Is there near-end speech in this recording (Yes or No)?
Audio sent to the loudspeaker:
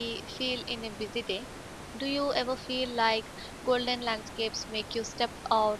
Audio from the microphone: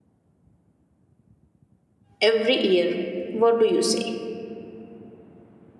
Yes